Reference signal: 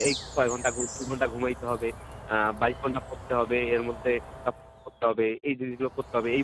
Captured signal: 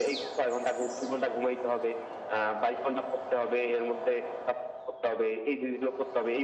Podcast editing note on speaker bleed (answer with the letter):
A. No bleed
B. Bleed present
B